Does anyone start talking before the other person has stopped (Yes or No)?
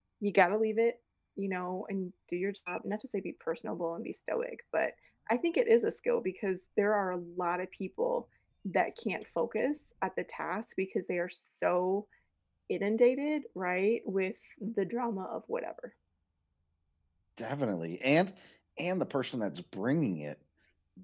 No